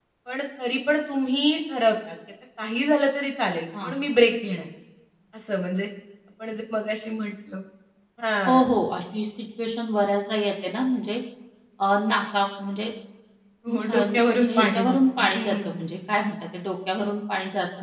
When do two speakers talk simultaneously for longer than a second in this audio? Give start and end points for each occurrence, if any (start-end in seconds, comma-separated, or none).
13.9-15.7